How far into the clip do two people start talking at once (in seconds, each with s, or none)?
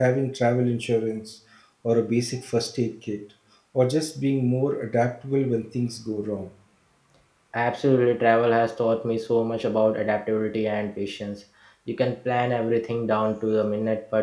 none